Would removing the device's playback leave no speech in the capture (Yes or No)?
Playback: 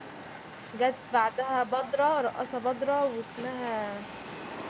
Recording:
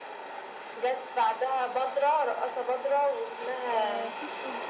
No